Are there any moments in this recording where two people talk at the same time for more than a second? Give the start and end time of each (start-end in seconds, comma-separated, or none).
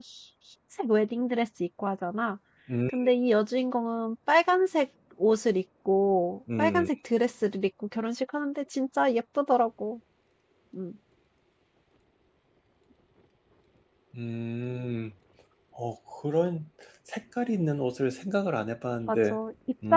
none